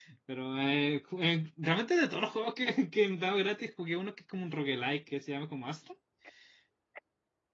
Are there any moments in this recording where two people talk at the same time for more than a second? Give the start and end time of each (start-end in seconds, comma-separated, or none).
none